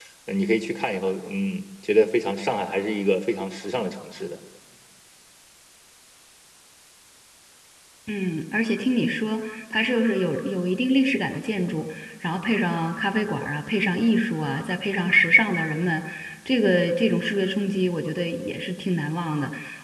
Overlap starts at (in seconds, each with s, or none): none